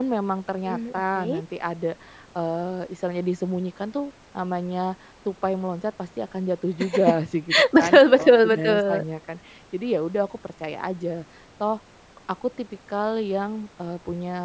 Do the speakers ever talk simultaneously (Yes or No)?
Yes